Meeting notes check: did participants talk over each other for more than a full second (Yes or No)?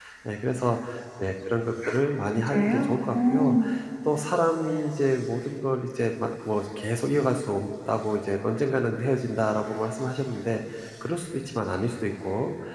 Yes